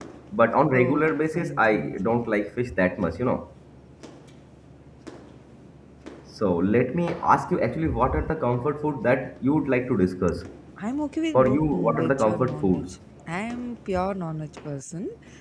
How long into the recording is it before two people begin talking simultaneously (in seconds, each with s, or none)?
0.7 s